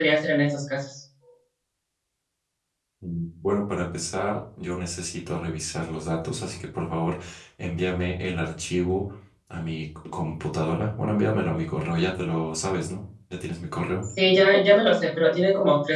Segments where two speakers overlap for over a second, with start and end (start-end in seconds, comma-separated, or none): none